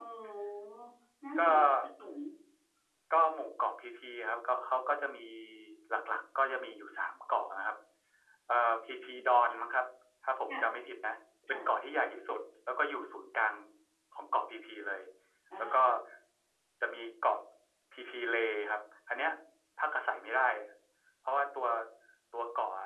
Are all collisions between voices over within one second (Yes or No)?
Yes